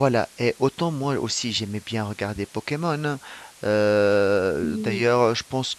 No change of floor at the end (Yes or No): Yes